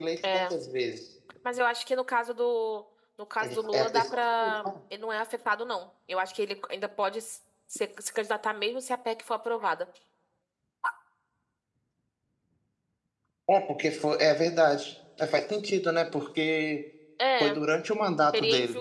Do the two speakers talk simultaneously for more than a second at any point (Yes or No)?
Yes